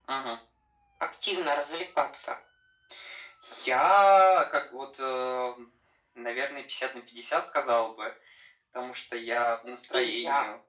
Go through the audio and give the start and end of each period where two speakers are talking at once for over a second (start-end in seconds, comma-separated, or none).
none